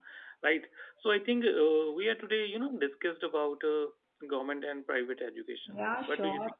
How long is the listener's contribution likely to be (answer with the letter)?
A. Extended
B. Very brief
A